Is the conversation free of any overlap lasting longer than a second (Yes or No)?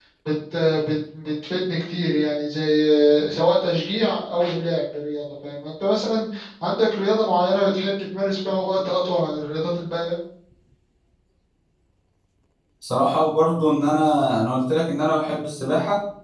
Yes